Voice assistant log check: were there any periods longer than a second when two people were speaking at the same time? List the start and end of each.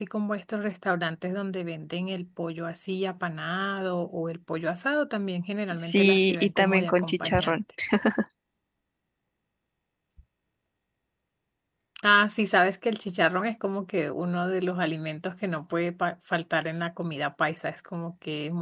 5.7-7.6

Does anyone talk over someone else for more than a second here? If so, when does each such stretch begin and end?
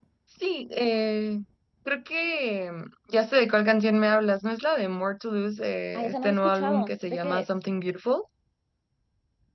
6.0-7.6

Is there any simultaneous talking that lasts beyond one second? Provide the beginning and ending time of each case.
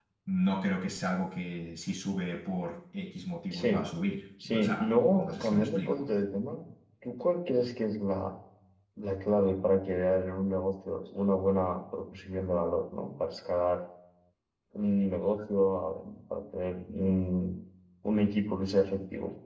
4.4-6.1

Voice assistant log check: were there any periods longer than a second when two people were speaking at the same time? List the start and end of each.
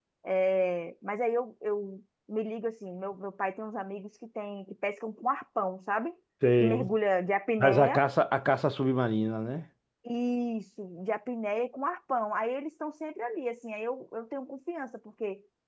none

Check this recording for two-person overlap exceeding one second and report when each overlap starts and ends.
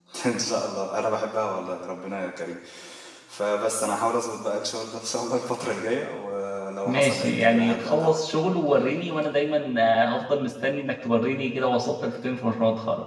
6.8-8.2

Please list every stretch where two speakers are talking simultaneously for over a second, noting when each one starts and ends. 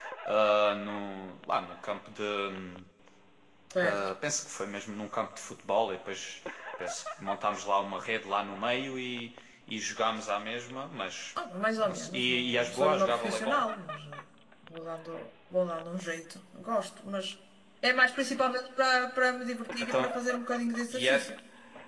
11.8-13.6

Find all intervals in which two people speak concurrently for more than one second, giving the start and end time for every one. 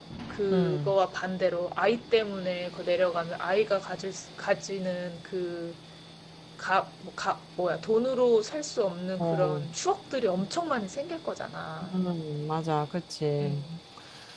none

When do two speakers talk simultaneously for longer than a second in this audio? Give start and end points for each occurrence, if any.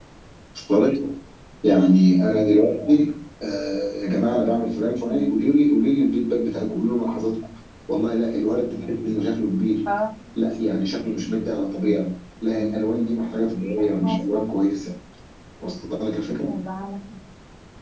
none

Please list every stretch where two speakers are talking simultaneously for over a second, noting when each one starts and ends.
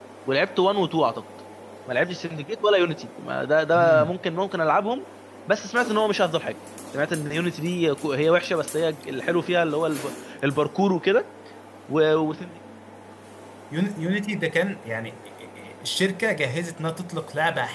none

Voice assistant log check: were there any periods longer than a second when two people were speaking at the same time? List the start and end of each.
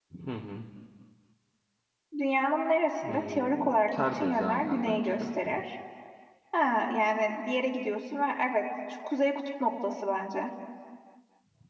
3.1-5.1

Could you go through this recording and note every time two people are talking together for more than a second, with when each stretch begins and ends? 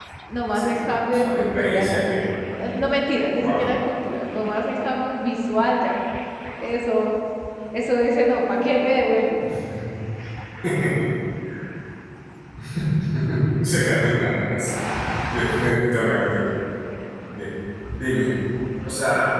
0.5-2.0

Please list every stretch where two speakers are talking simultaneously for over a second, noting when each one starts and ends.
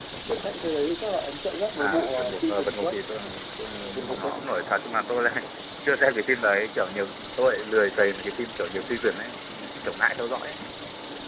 1.8-3.0

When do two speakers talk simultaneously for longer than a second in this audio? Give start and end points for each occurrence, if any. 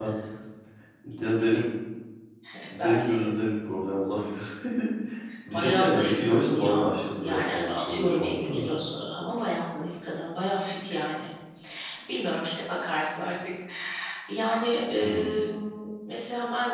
5.5-8.6

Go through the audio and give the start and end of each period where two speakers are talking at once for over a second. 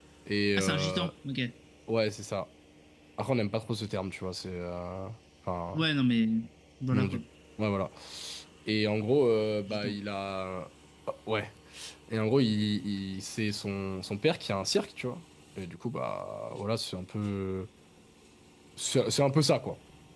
none

